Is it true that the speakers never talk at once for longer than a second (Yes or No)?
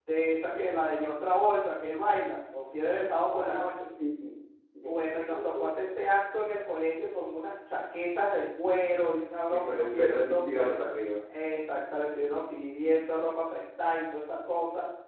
No